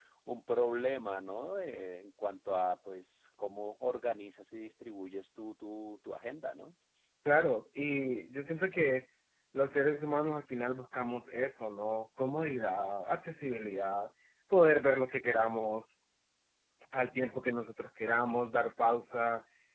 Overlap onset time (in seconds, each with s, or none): none